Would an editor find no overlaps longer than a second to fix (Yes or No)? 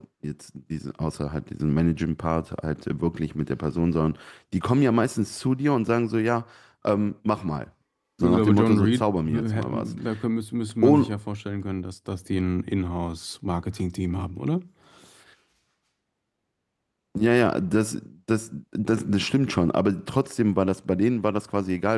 No